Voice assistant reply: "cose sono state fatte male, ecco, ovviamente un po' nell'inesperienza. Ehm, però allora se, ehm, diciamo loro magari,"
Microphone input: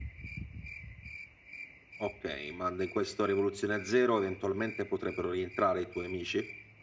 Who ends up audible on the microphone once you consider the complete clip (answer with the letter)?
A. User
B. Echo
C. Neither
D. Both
A